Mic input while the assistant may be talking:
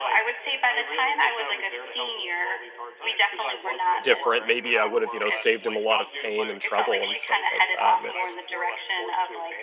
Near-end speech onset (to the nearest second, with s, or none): 4 s